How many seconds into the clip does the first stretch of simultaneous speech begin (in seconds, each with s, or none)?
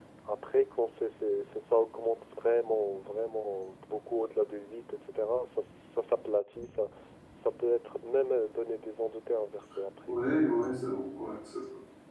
none